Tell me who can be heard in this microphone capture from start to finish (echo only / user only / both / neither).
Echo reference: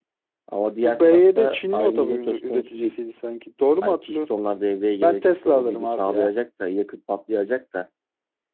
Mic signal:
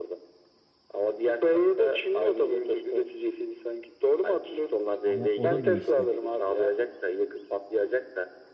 both